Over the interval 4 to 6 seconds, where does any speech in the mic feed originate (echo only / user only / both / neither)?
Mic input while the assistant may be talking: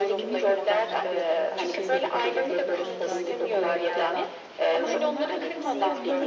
both